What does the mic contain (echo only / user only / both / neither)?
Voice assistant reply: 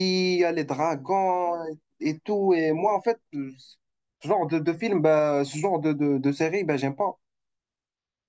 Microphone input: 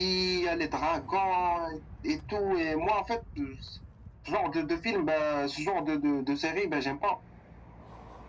echo only